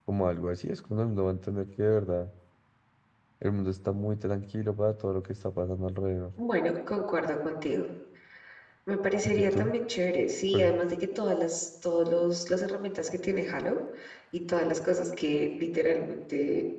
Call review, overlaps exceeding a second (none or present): none